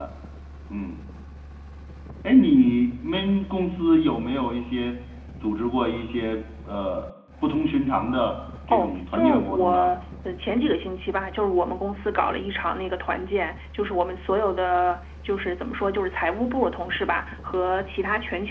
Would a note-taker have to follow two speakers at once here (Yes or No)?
Yes